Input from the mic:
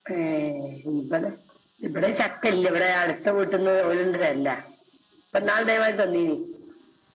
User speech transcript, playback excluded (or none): none